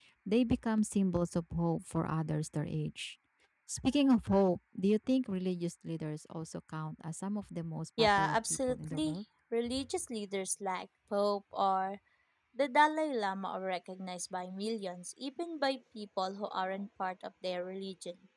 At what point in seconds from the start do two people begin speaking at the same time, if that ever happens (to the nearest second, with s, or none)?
8 s